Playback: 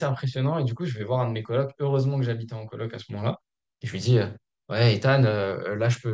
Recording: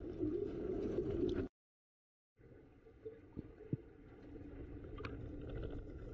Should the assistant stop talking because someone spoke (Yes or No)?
No